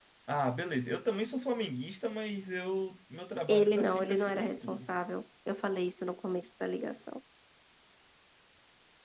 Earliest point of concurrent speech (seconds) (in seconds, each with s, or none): 3.5 s